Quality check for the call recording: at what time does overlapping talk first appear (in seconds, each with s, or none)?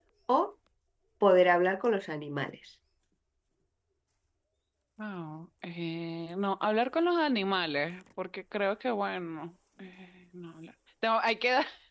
none